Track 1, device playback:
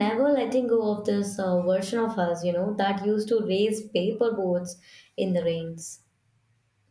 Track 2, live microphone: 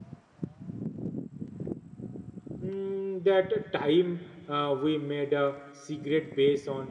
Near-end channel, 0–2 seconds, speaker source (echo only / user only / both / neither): neither